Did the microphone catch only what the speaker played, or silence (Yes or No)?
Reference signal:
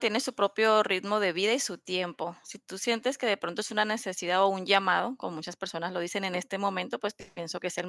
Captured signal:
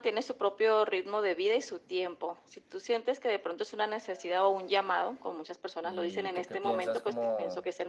No